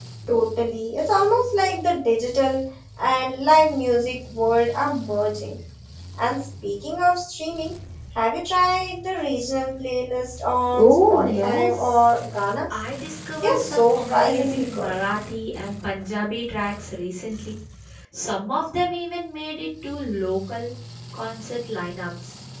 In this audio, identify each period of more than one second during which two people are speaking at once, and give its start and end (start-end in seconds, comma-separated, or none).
10.7-12.0, 13.4-14.9